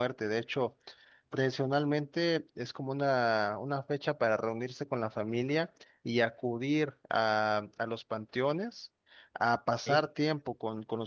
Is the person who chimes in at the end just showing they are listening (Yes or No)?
Yes